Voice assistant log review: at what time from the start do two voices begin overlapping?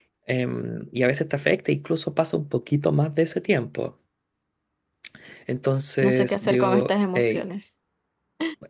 6.0 s

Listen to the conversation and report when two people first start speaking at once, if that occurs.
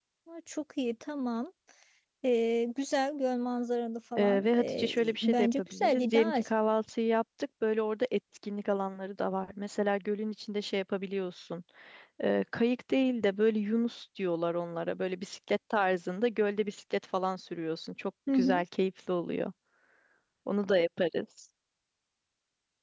4.2 s

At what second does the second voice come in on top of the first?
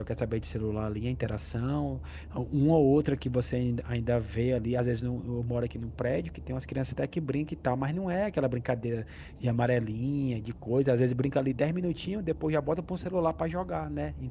none

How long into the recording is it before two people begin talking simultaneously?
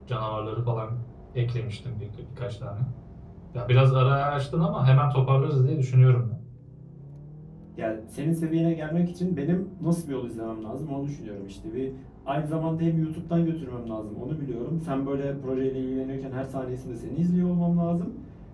none

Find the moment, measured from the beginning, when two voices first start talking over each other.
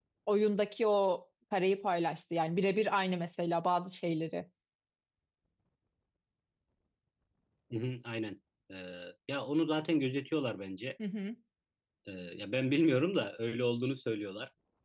none

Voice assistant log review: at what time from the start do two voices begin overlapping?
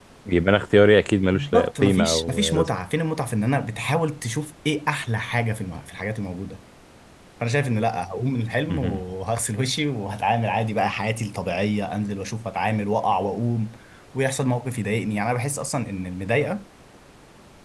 1.3 s

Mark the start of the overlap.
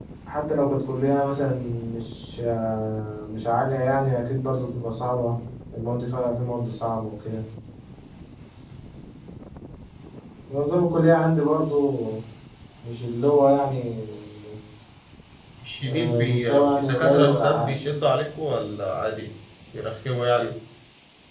15.8 s

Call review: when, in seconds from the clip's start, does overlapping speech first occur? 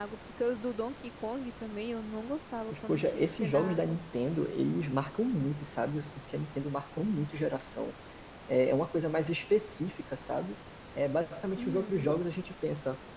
2.7 s

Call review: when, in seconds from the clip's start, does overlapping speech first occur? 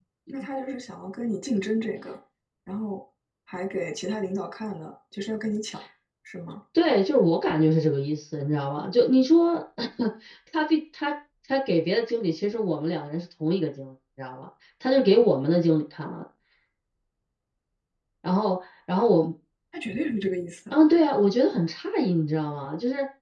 none

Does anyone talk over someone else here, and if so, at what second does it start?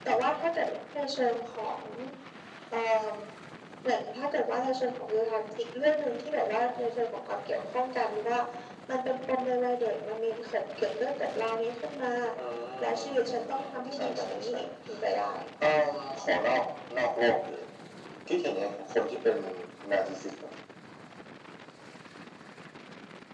12.8 s

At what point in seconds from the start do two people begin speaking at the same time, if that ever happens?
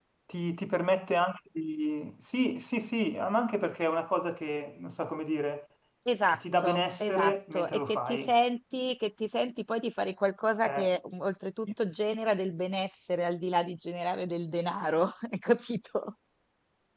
6.3 s

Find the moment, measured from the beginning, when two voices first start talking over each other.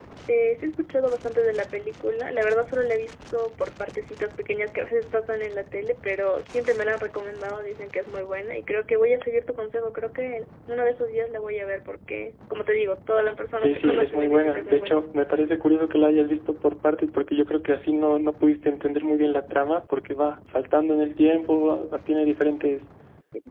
13.6 s

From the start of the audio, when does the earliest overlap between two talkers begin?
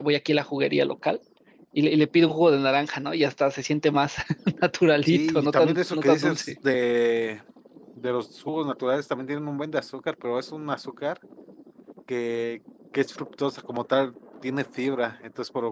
5.0 s

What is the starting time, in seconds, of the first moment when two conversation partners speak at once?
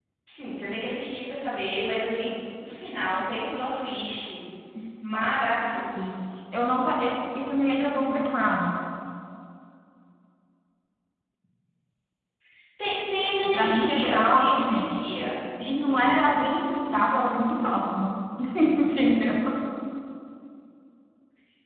13.4 s

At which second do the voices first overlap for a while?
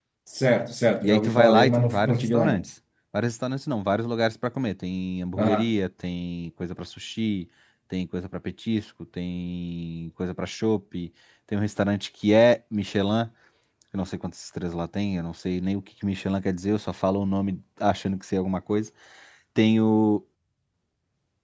1.0 s

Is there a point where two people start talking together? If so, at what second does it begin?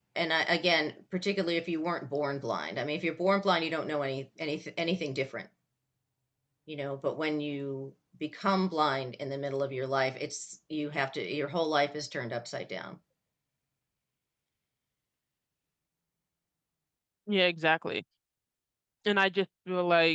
none

